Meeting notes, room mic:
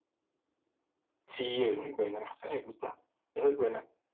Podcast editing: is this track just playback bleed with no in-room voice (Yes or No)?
Yes